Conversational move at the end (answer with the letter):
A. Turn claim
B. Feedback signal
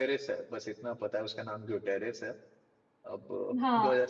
A